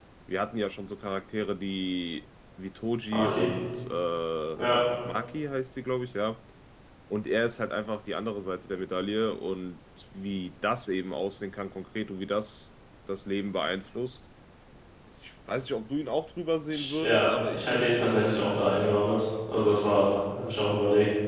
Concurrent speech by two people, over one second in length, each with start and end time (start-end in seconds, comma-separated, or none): 16.7-19.2